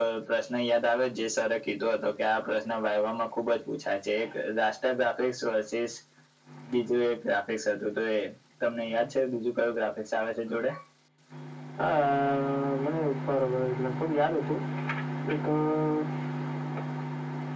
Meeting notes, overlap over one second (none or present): none